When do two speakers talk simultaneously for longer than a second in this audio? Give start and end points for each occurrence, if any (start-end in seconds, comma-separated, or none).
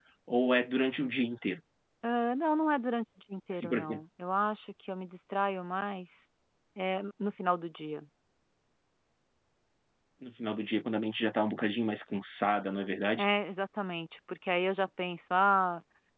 none